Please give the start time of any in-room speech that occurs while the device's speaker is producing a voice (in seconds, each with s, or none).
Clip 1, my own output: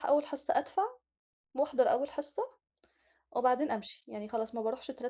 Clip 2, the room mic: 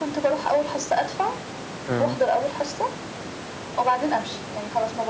1.9 s